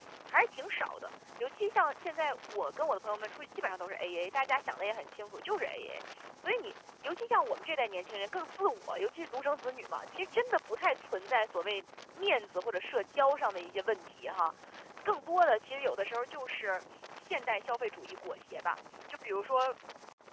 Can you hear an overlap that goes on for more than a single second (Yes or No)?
No